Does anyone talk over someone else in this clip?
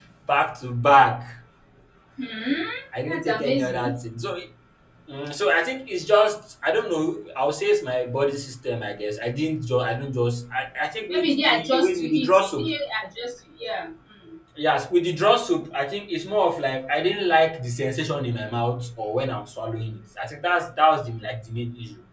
Yes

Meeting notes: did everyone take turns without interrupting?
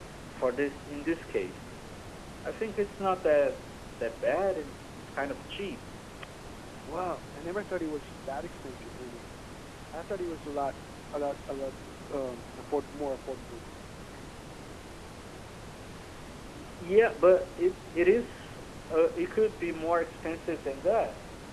Yes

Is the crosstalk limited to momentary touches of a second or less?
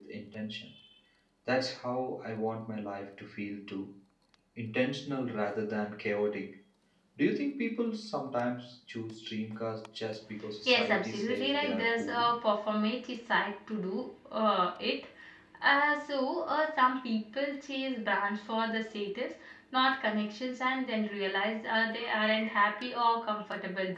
No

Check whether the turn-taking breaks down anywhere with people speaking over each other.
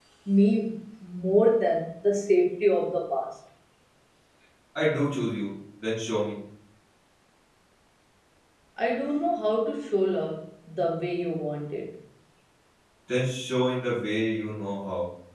No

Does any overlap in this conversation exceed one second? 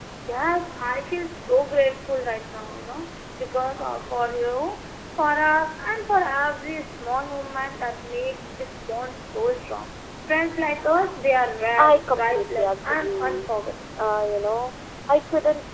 Yes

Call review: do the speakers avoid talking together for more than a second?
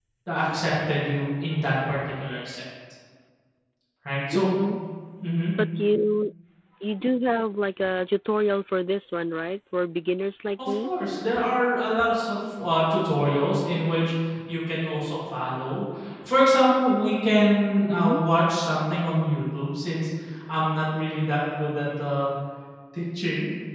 Yes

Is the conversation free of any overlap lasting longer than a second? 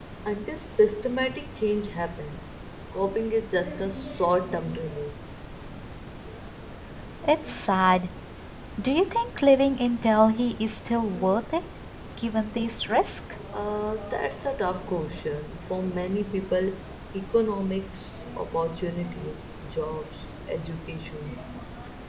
Yes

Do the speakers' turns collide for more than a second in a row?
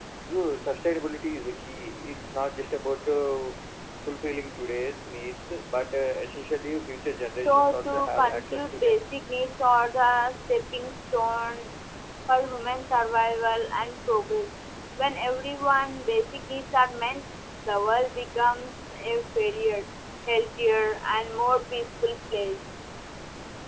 Yes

